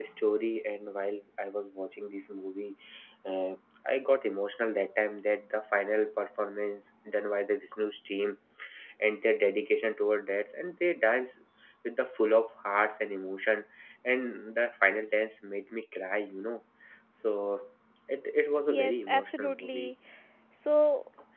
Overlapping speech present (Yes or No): Yes